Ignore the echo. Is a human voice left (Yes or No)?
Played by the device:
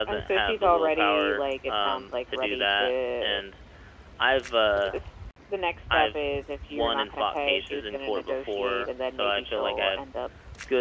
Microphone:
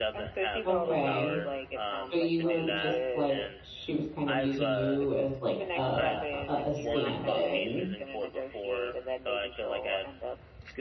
Yes